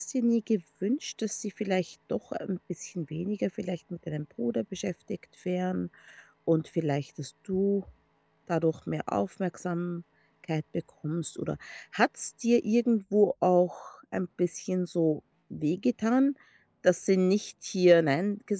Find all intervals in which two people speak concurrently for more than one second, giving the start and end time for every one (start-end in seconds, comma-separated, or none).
none